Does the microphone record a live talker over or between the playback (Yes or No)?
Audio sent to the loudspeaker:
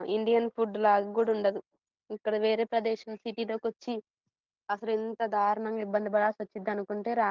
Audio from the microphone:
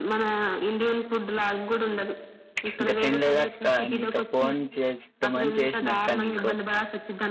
Yes